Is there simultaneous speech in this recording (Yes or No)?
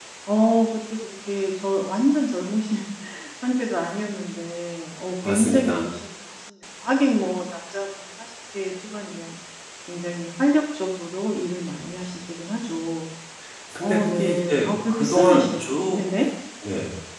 Yes